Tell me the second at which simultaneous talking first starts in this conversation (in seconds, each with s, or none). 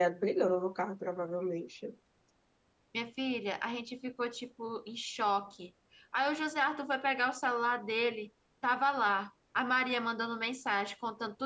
none